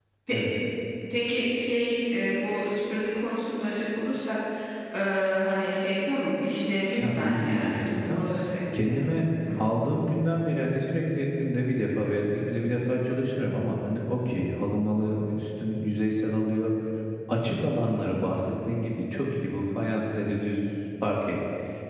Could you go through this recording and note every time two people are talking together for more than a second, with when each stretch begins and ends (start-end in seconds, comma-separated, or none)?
7.0-8.2